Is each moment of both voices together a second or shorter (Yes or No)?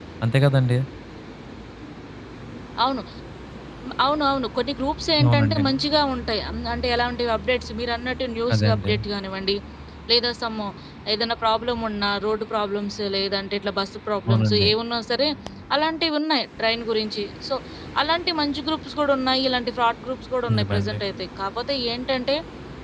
Yes